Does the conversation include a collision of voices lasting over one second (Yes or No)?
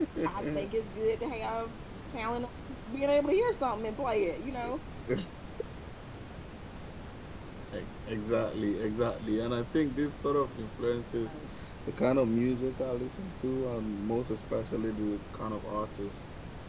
No